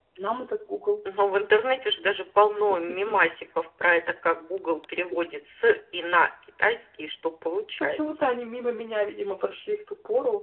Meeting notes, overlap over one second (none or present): none